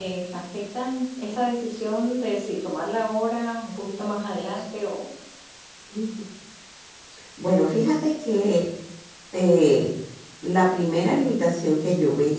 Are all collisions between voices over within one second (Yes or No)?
Yes